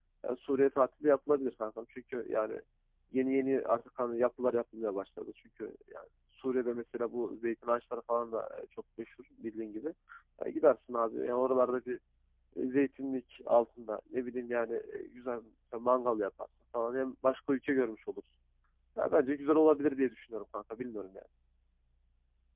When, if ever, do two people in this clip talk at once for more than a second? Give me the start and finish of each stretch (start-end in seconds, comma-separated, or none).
none